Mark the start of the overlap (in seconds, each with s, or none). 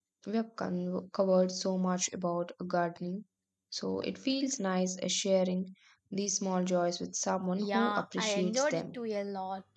7.6 s